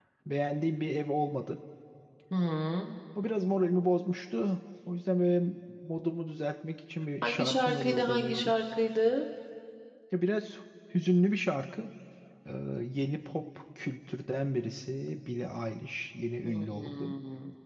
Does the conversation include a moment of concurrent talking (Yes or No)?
Yes